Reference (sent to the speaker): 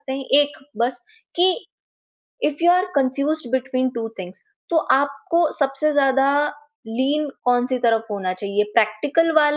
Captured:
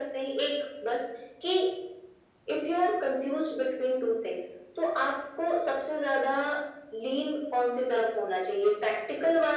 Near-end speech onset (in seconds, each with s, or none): none